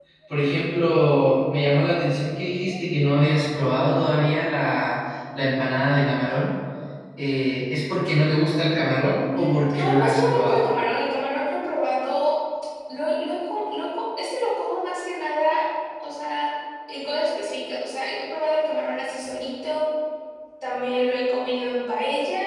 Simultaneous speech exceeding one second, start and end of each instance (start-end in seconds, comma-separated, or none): 9.4-10.7